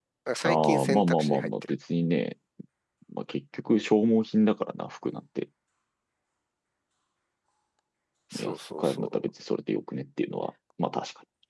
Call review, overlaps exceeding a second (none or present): present